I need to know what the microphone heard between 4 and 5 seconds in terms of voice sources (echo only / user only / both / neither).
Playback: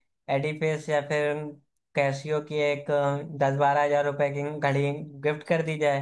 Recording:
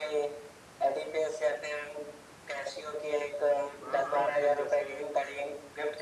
both